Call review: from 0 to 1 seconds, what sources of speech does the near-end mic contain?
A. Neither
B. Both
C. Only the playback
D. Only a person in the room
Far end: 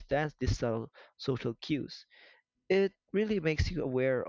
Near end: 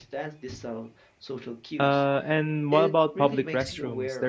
C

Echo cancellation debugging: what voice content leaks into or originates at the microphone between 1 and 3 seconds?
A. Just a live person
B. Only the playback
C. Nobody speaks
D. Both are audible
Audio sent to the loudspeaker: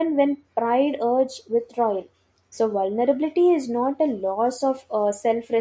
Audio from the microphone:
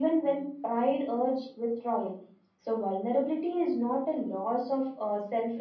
B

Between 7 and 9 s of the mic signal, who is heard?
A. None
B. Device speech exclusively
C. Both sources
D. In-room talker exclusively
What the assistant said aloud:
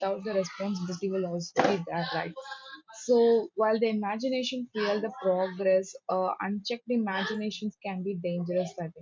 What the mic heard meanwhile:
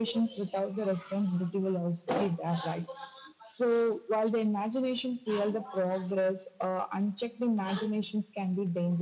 B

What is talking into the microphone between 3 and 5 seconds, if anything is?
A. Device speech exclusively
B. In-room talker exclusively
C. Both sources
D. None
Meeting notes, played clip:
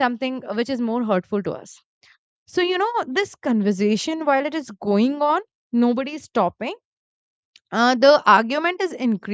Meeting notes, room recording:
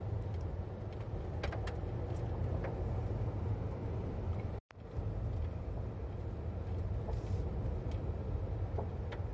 D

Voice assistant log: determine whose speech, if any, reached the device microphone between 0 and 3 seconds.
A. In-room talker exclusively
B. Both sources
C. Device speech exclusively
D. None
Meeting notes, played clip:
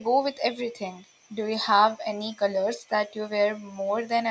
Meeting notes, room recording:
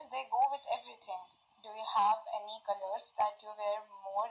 C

